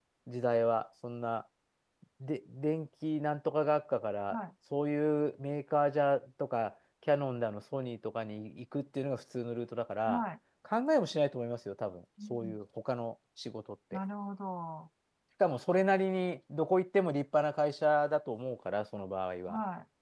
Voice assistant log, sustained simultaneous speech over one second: none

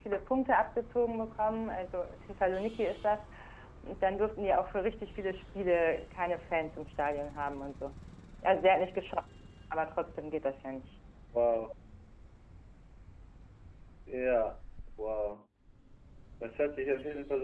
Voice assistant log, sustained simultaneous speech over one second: none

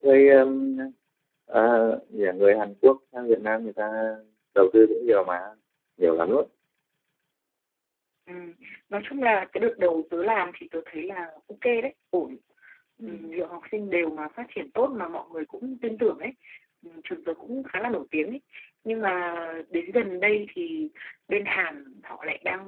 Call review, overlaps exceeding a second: none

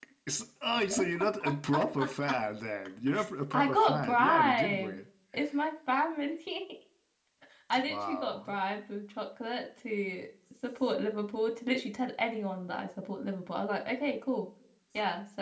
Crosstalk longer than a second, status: present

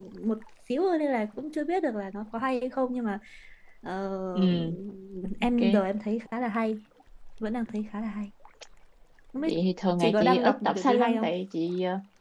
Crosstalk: present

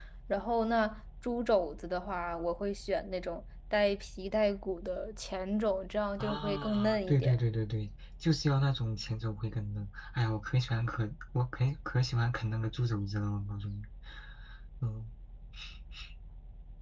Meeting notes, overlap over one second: present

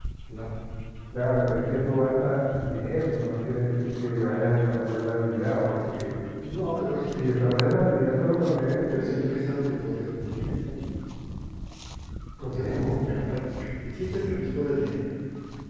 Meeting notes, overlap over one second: none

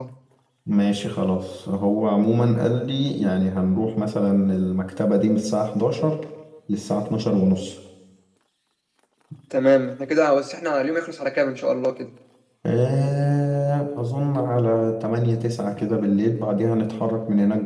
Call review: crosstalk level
none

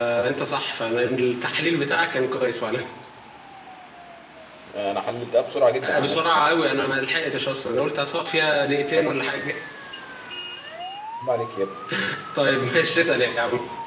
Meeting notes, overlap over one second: none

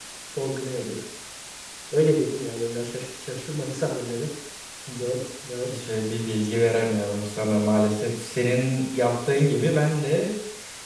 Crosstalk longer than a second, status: none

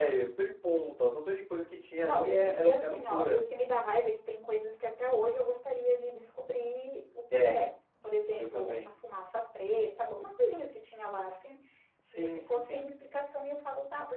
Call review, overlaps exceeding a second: present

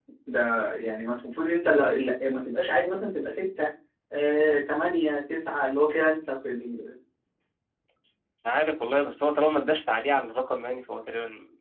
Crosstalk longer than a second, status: none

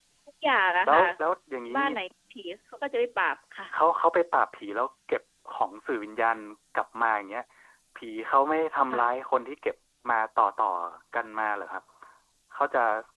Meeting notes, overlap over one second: none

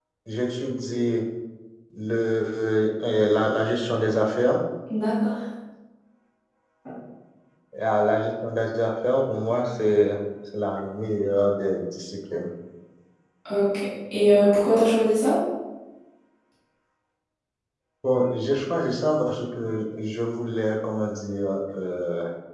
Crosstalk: none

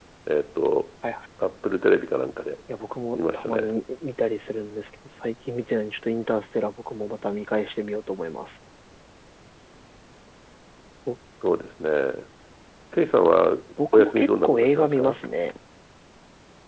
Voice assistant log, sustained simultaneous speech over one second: present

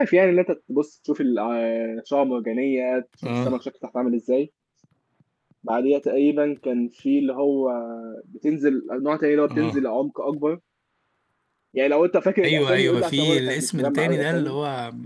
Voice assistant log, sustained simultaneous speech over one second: present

